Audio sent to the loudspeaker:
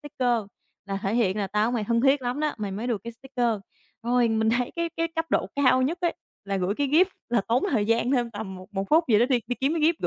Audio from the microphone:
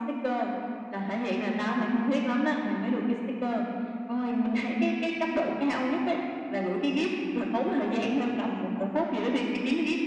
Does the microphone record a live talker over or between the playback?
No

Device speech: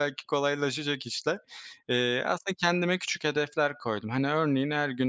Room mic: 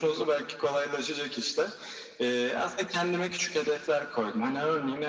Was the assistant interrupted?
No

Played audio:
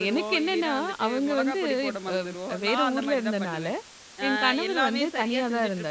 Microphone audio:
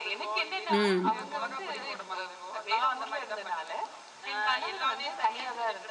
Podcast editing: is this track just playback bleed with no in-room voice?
No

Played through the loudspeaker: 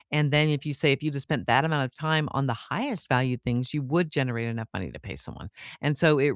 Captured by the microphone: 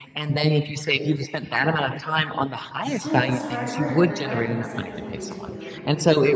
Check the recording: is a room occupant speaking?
Yes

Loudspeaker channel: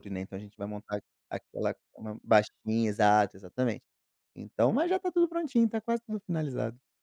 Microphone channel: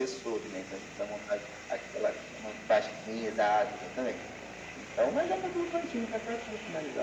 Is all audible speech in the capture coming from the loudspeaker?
Yes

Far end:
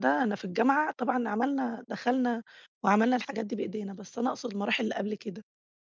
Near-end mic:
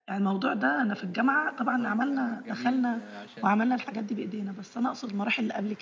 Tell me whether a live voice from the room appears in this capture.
Yes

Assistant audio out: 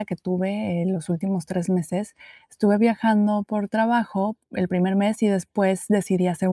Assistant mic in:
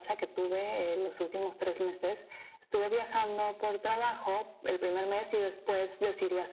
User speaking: No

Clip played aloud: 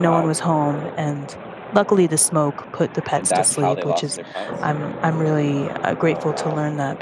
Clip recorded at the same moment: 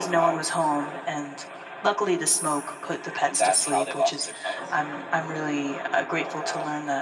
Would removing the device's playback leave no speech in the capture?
Yes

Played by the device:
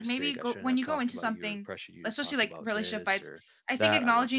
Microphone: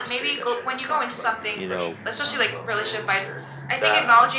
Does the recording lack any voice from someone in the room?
No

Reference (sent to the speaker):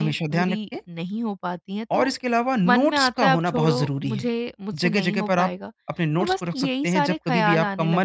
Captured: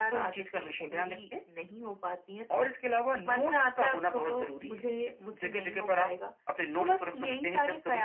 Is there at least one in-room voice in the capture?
No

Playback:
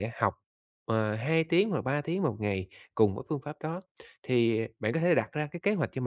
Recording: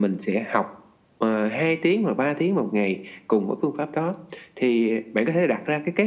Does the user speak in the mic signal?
No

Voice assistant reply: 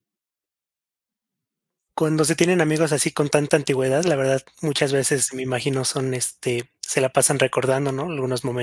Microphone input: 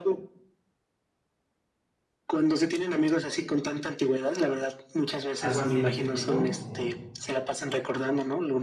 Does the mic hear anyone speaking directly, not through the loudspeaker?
Yes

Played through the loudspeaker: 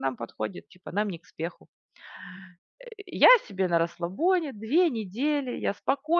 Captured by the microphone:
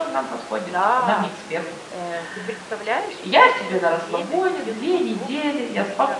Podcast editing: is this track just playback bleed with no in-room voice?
No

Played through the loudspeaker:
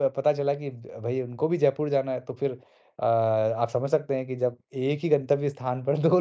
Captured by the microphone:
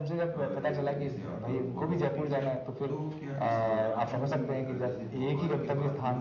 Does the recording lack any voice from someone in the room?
No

